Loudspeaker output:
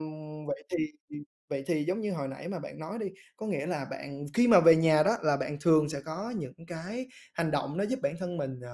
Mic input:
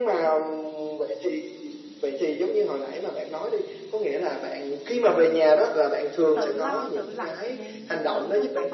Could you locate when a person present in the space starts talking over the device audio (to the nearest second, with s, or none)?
6 s